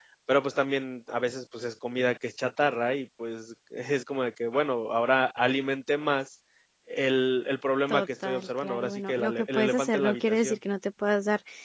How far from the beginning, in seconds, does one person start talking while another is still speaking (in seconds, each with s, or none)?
7.9 s